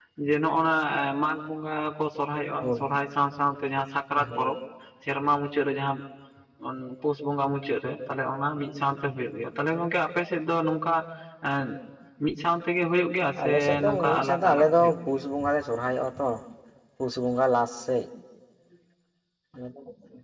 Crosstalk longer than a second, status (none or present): present